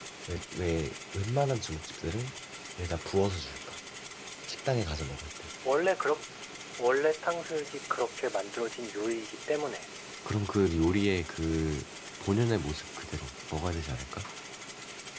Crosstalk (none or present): none